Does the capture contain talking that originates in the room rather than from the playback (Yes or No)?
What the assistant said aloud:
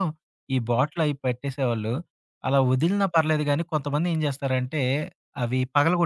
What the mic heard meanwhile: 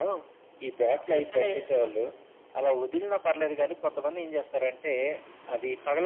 Yes